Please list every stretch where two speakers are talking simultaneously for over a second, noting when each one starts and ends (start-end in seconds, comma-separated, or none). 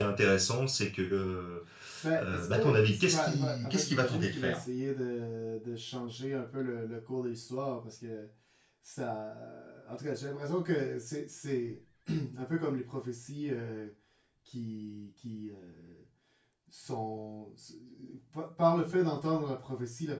2.2-4.6